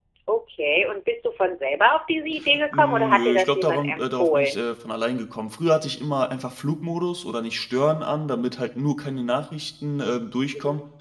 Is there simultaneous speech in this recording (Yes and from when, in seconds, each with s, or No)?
Yes, from 2.7 s